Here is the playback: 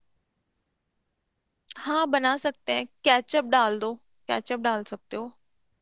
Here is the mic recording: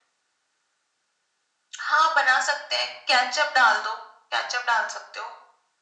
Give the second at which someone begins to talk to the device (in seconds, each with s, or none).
none